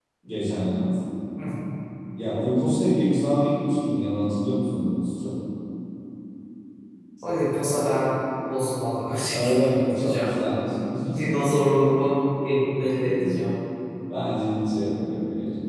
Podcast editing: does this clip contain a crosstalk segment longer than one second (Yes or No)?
Yes